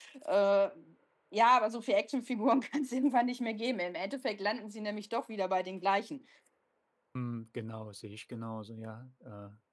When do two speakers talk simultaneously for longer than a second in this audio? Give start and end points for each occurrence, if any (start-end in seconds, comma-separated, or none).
none